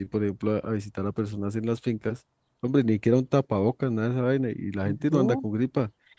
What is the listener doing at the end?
listening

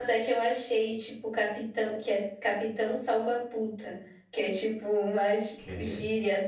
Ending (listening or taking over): listening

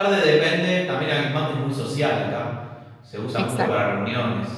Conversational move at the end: listening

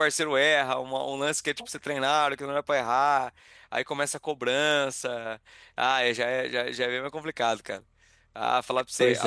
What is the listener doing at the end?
listening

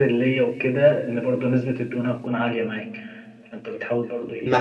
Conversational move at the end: taking over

